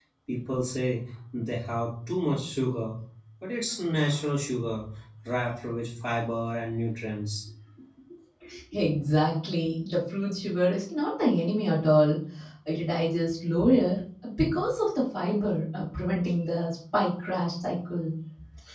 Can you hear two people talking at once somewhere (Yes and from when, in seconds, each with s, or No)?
No